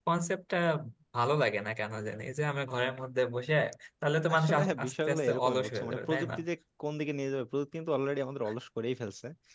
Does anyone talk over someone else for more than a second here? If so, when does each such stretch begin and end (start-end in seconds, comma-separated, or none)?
4.3-6.3